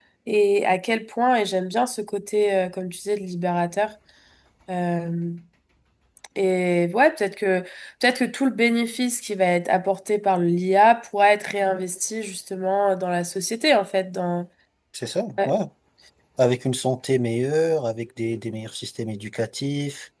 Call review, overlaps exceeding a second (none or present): none